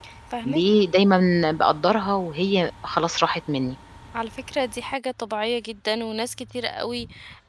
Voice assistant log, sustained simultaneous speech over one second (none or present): none